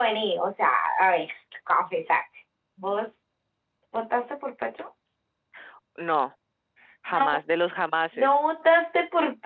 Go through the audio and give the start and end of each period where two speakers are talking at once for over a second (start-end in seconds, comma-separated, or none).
none